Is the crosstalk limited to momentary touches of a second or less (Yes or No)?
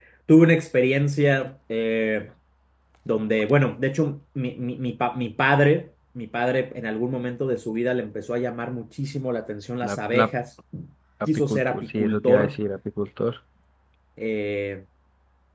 No